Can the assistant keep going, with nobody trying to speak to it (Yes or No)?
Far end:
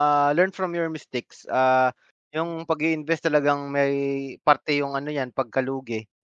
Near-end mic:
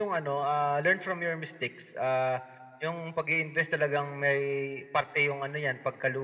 Yes